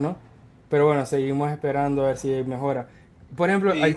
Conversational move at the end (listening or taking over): listening